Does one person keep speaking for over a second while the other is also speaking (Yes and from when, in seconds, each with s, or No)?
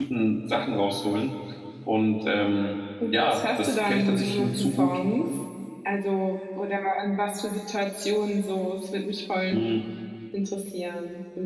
Yes, from 3.0 s